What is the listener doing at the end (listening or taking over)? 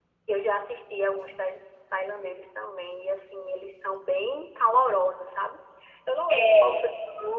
listening